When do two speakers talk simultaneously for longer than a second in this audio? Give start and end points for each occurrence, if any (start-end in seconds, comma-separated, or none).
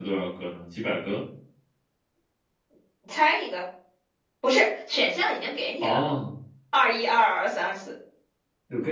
none